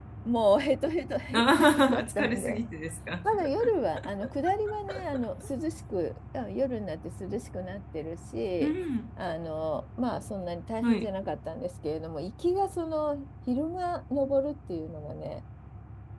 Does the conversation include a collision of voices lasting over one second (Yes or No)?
Yes